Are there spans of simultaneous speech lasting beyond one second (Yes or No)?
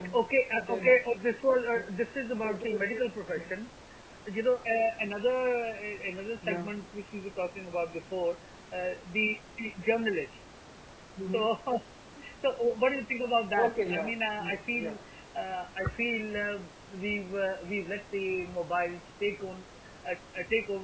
Yes